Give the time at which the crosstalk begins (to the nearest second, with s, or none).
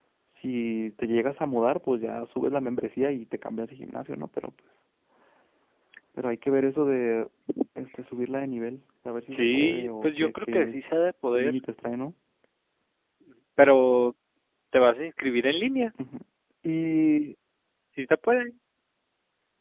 9 s